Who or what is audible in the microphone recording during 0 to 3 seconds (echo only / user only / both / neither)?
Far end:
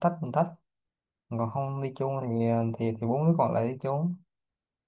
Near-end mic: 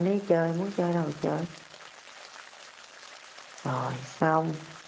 user only